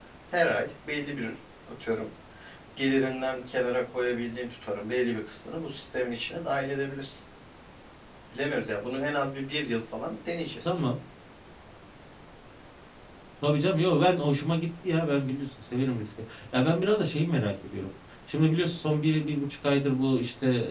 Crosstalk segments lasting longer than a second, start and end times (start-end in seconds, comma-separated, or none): none